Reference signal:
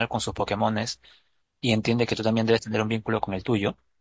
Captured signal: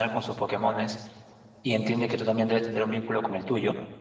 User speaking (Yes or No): No